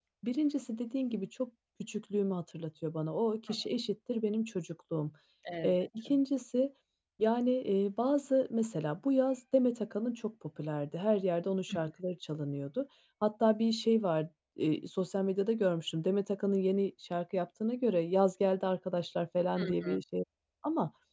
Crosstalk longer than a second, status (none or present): none